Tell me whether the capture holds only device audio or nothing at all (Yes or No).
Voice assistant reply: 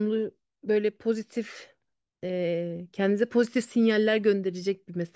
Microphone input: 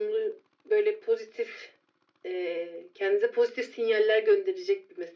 Yes